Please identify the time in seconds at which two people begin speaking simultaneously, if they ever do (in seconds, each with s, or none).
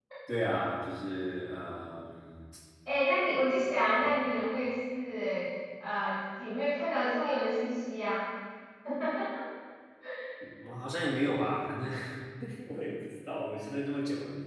none